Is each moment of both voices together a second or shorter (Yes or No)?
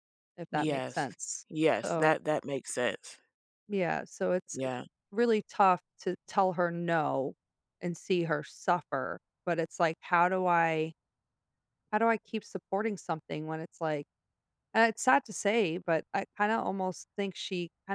Yes